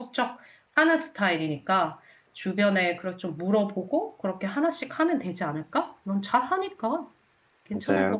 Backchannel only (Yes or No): No